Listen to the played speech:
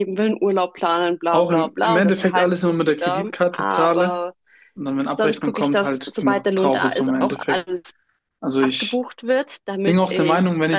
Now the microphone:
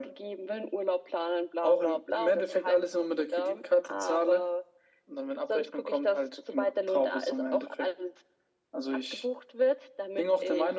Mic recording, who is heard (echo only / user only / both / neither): echo only